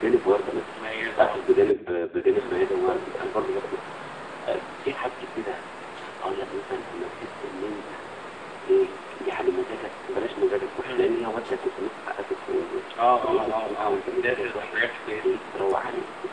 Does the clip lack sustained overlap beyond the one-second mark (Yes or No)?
No